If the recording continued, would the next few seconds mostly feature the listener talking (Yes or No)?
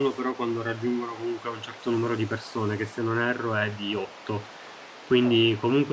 No